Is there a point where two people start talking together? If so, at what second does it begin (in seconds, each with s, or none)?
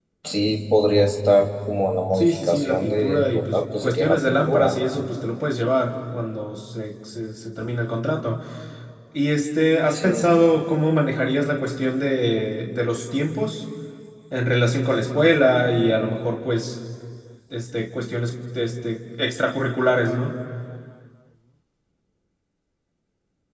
2.2 s